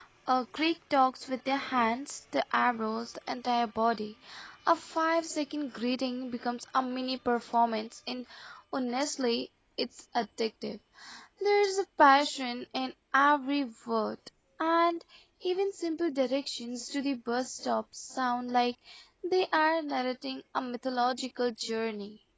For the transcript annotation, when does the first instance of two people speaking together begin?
none

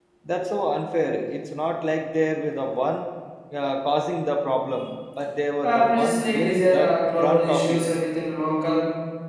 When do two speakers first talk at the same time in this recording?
5.6 s

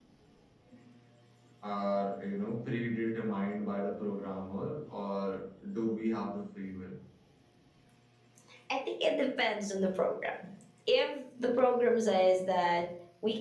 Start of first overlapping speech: none

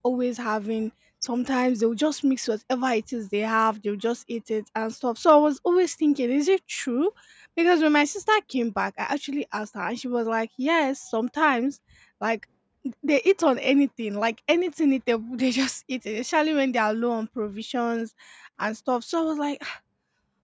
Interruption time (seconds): none

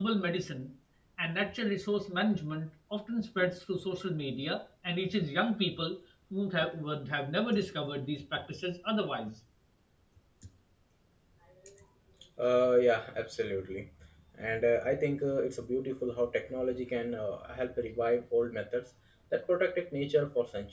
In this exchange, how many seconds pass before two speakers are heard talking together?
none

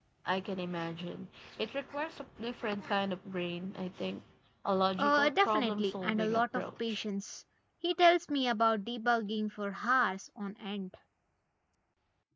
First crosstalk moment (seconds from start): 5.0 s

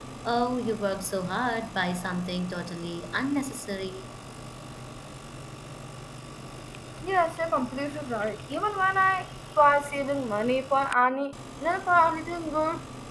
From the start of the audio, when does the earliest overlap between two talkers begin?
none

